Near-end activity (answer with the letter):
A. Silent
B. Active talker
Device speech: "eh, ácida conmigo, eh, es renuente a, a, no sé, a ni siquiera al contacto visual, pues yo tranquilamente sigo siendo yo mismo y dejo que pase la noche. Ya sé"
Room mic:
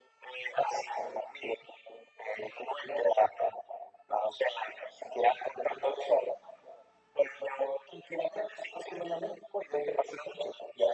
A